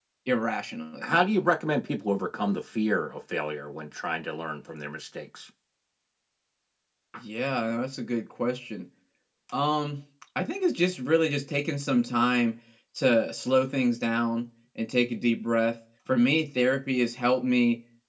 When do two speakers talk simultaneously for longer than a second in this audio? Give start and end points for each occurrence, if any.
none

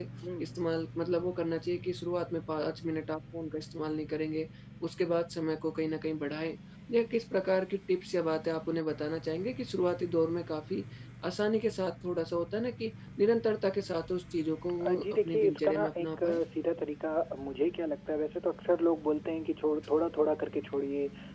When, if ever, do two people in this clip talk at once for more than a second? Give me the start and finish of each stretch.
14.8-16.4

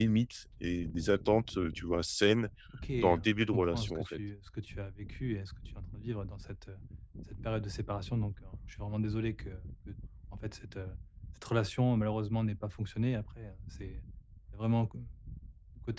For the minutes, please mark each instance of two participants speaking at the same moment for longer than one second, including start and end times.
3.0-4.2

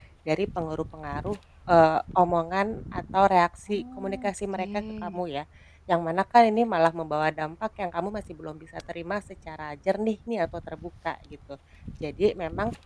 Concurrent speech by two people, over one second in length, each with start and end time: 3.7-5.2

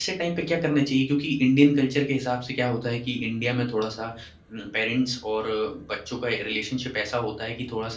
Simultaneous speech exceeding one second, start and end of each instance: none

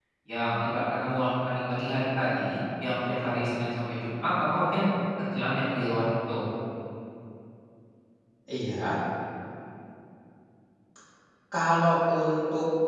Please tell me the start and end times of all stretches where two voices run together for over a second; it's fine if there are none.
none

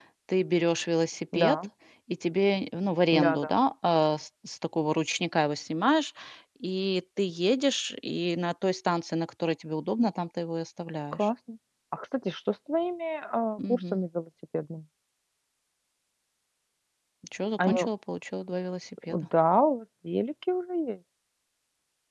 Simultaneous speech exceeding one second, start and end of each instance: none

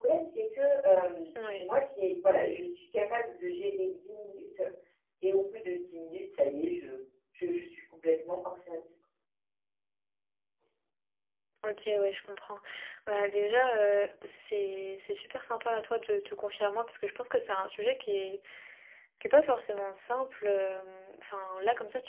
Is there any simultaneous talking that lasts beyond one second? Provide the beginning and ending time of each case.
none

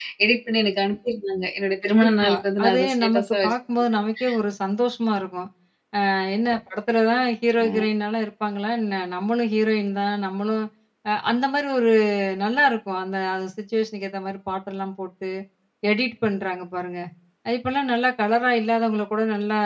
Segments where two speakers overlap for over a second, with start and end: 1.8-3.5

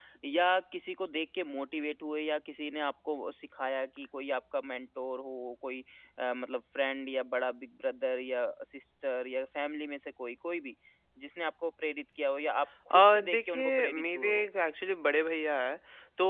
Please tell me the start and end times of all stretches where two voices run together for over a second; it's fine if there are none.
12.9-14.4

